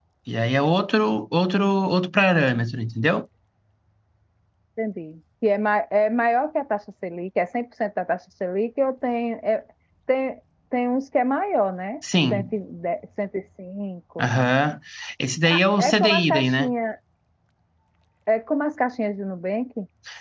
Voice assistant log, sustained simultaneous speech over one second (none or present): present